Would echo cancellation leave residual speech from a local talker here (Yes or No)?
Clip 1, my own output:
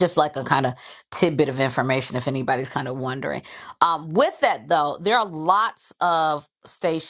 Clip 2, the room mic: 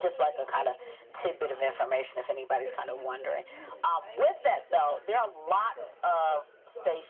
Yes